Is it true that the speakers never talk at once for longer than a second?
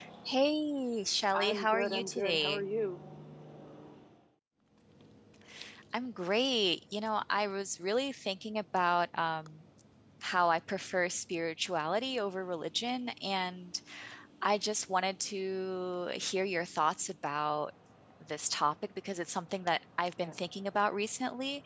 No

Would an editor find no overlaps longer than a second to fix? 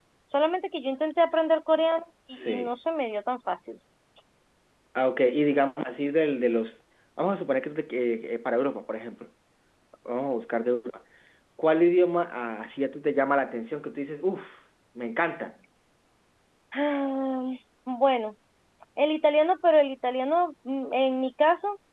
Yes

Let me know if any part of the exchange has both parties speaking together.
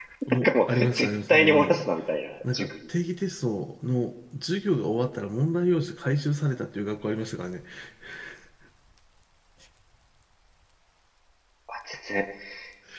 Yes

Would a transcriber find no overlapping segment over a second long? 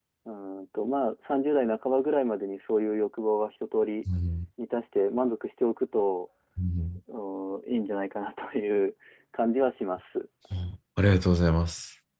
Yes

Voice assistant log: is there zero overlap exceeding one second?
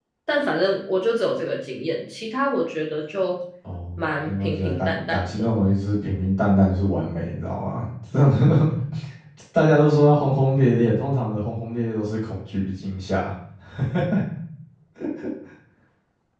No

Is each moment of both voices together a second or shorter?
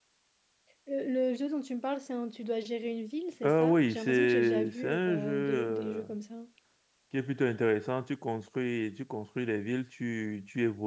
No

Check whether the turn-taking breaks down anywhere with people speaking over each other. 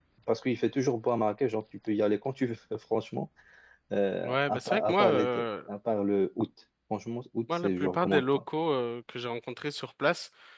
Yes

